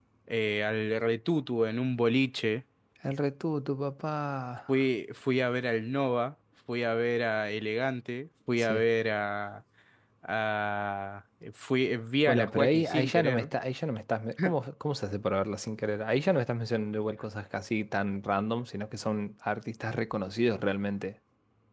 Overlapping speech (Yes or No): Yes